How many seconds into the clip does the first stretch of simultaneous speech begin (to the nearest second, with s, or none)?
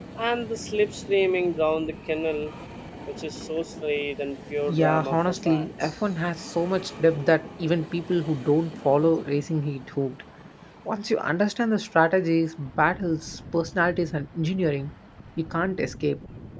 5 s